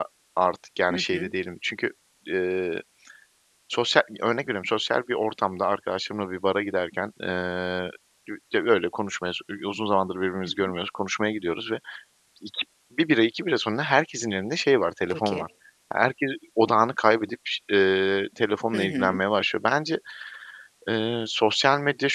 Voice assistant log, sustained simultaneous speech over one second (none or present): none